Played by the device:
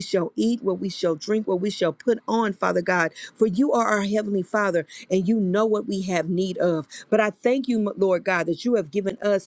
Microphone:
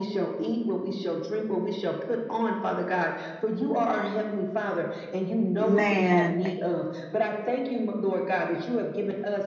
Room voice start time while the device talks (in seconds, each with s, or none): 5.6 s